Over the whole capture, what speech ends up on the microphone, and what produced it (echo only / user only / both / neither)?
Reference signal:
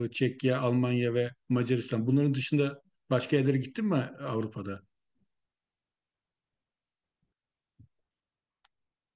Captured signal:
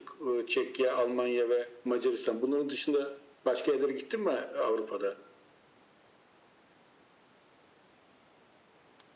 echo only